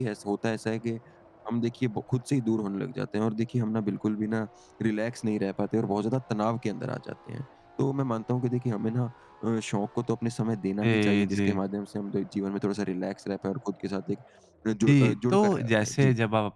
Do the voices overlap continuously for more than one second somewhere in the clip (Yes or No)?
Yes